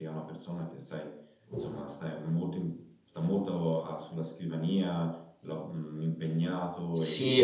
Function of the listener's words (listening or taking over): taking over